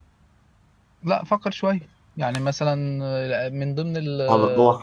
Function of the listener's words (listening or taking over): taking over